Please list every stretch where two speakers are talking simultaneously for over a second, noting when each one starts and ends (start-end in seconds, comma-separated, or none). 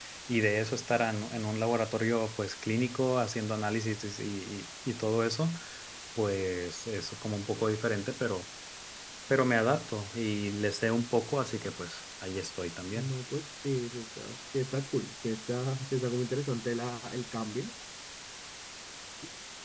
none